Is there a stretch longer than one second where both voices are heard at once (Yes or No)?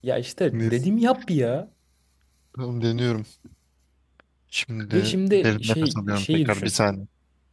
Yes